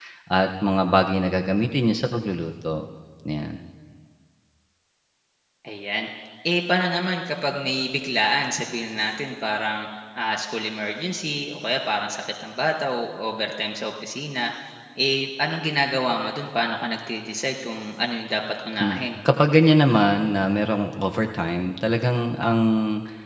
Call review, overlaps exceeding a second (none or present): none